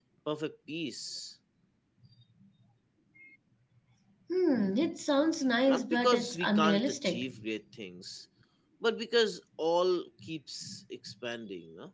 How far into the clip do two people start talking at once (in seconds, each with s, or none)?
5.7 s